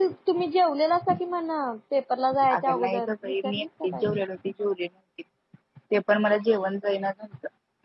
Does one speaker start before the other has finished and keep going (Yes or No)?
Yes